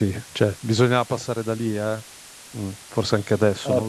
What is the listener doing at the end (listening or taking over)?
taking over